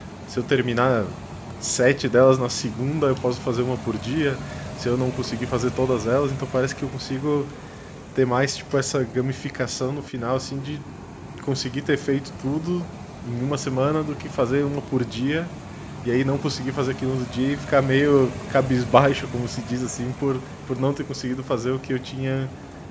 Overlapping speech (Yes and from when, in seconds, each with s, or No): No